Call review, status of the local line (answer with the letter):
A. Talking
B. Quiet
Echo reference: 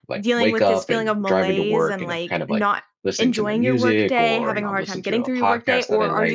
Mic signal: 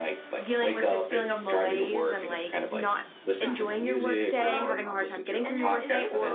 A